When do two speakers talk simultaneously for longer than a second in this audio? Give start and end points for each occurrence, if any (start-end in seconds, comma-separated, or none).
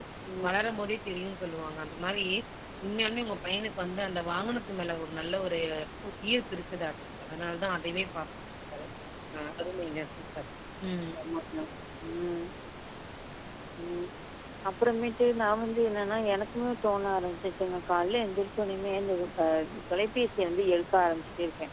none